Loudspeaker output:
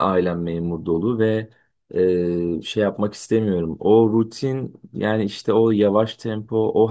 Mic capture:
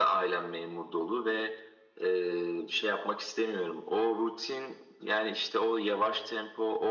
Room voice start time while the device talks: none

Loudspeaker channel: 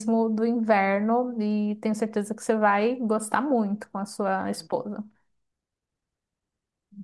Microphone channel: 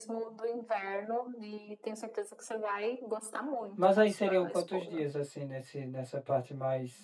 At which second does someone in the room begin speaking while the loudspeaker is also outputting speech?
3.7 s

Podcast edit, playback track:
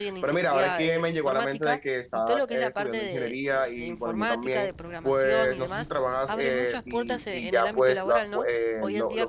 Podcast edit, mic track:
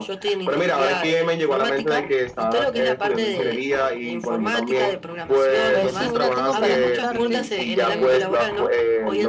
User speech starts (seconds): 5.7 s

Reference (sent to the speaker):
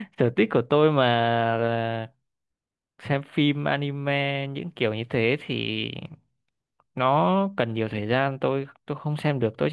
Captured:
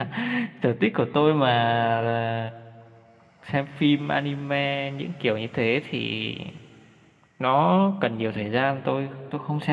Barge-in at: none

